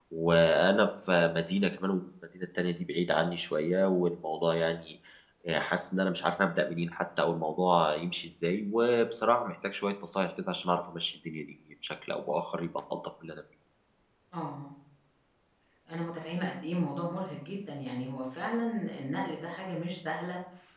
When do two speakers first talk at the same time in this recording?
none

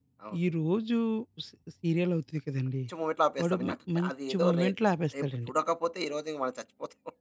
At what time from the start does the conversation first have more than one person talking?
3.4 s

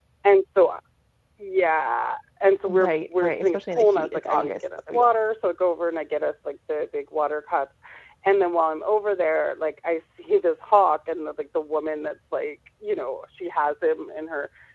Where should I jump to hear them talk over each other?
2.7 s

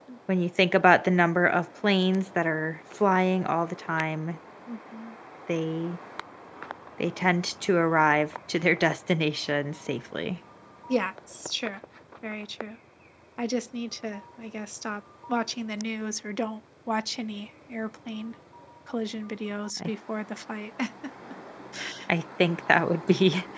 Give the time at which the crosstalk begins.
none

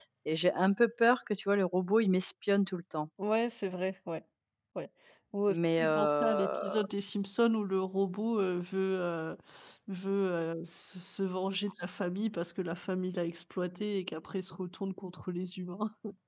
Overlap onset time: 5.5 s

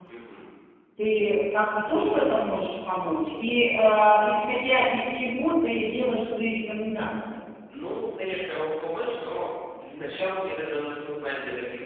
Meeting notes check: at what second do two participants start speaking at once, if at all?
none

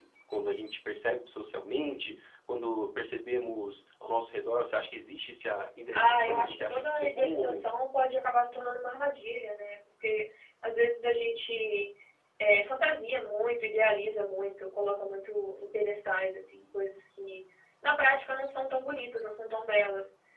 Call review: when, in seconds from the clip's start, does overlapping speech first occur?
5.9 s

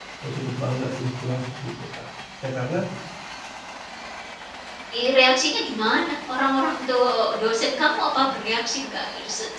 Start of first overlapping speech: none

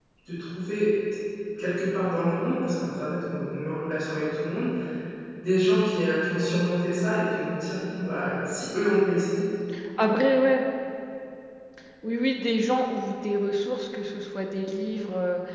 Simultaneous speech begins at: none

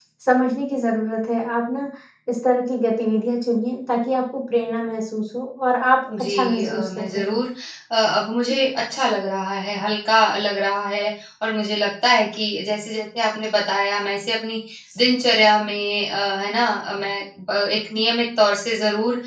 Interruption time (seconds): 6.1 s

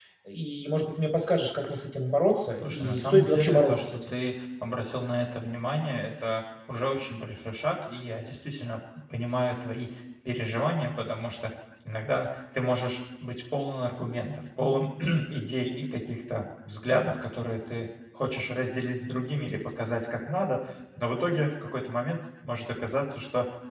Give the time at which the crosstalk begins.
2.6 s

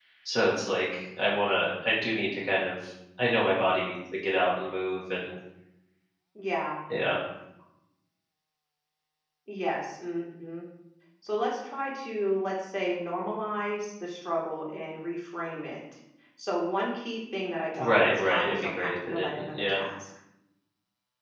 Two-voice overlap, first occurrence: 17.8 s

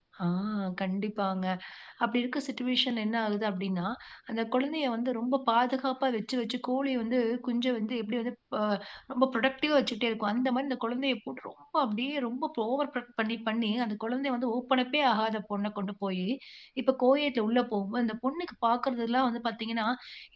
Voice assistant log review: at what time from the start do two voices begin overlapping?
none

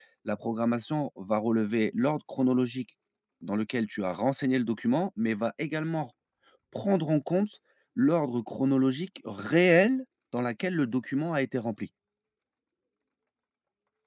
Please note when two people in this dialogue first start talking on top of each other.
none

